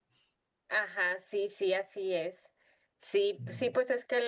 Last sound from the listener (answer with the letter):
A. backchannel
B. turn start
A